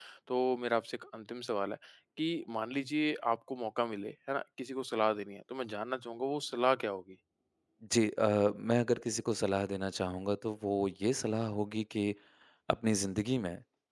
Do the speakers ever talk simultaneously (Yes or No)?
No